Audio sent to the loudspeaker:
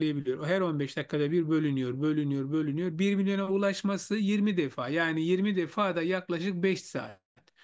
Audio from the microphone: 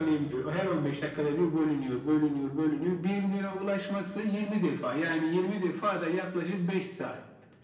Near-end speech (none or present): none